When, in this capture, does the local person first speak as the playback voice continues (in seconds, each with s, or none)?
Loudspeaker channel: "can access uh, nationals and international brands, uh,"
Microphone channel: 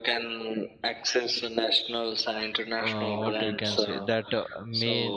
2.8 s